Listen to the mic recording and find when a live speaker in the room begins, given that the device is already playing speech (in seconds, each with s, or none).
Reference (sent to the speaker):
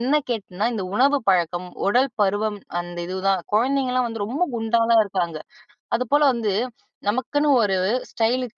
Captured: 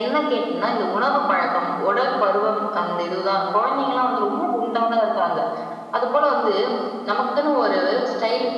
none